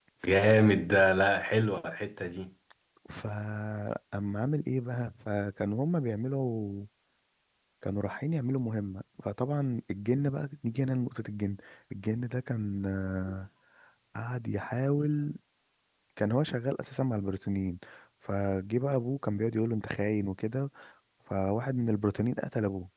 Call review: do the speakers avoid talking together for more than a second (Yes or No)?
Yes